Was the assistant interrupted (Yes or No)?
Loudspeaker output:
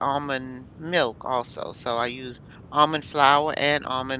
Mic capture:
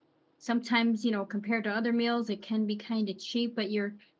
Yes